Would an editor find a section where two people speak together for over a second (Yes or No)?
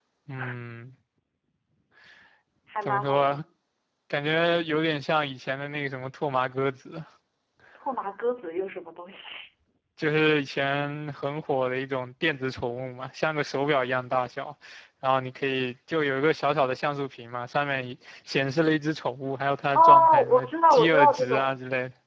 Yes